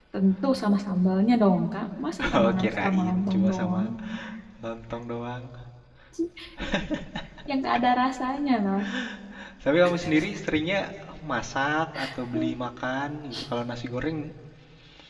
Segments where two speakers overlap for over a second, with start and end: 2.4-3.8

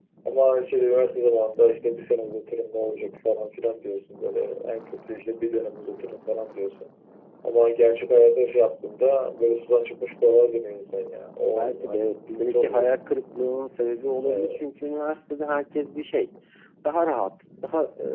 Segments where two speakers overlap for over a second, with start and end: 11.6-12.9

